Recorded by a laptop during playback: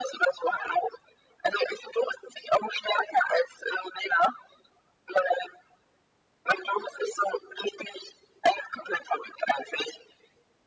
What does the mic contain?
echo only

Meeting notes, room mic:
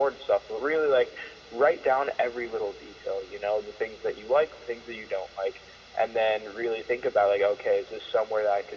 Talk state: echo only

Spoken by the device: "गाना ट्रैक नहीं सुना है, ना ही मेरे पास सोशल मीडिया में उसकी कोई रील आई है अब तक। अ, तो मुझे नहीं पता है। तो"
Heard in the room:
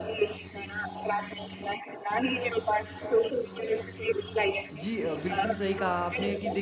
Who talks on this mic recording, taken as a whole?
both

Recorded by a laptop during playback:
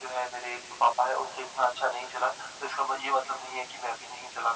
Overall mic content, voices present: echo only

